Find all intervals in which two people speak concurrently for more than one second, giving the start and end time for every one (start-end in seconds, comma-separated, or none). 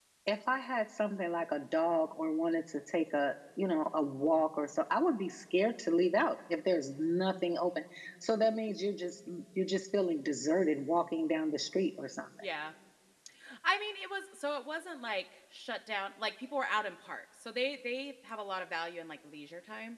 none